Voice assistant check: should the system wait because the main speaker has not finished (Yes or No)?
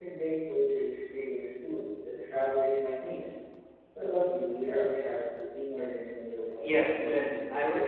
No